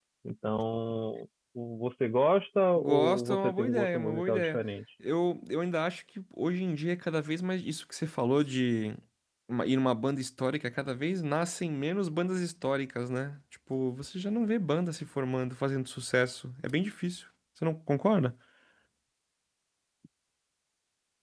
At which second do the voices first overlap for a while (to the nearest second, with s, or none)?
3 s